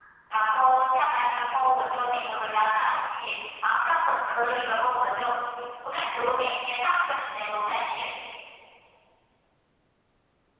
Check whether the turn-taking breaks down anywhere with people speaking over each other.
No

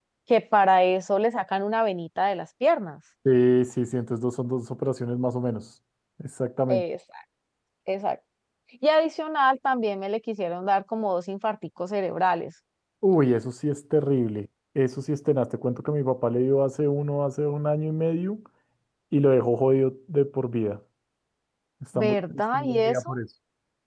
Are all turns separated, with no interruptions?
No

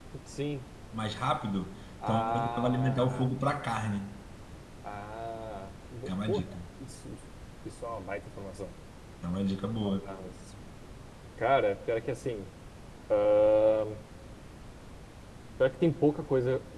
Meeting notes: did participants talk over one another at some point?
Yes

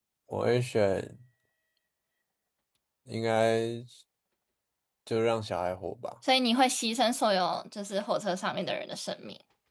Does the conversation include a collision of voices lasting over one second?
No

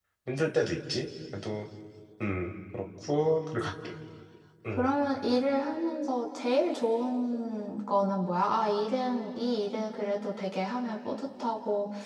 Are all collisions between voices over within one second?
Yes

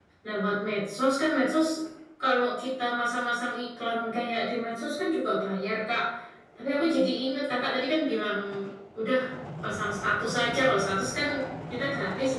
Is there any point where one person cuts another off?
No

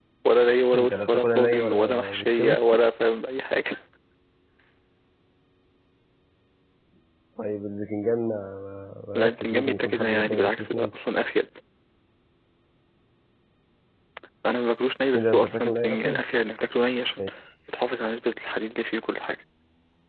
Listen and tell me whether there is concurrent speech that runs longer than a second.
Yes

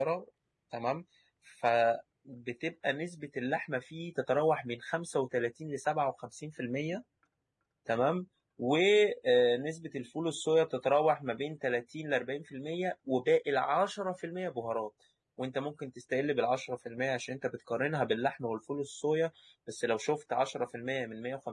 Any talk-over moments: No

